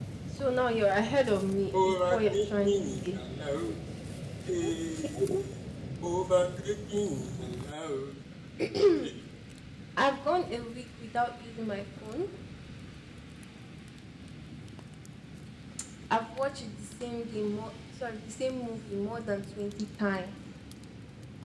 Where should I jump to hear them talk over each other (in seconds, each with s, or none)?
1.1 s